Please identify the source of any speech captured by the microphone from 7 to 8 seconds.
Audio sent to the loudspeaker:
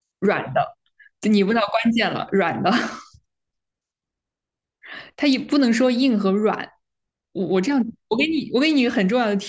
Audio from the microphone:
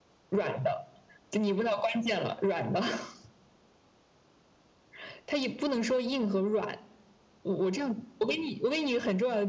echo only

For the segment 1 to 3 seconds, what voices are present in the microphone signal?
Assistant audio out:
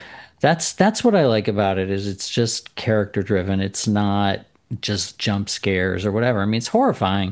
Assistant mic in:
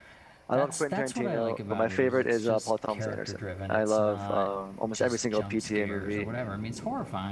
both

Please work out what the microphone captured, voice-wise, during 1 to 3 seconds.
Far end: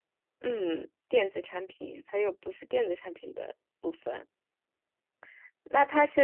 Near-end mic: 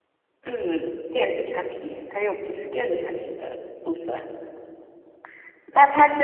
echo only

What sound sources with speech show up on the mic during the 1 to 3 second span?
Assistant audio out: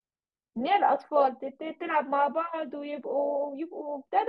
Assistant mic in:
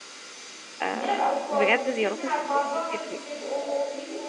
both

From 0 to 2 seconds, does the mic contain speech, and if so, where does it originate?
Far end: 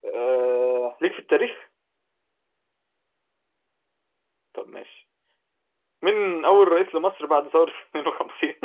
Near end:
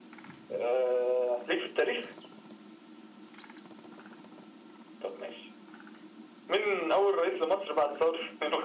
echo only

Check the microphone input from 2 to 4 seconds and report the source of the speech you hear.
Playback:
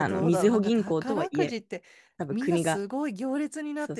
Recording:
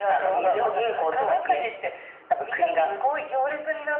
echo only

